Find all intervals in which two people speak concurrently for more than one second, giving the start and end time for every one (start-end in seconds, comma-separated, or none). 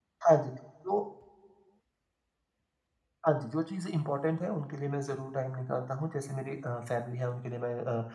none